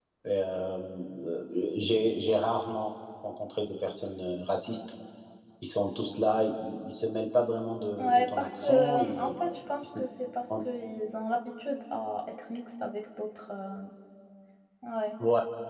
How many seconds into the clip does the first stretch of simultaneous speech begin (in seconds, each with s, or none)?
8.0 s